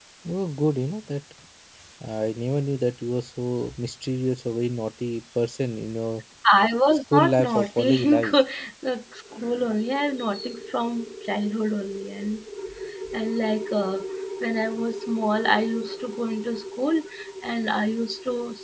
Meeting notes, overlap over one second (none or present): present